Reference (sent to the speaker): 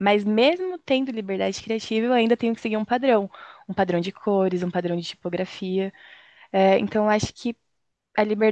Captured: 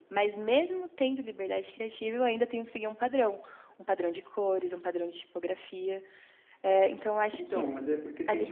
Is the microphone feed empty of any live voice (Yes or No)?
No